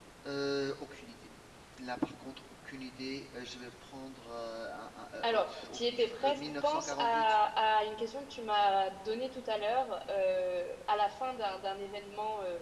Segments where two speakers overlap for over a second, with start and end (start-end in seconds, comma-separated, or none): 5.2-7.4